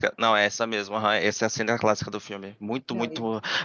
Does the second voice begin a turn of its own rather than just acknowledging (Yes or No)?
No